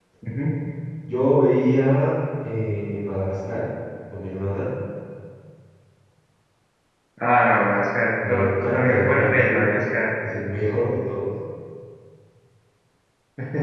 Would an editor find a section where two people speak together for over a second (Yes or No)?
Yes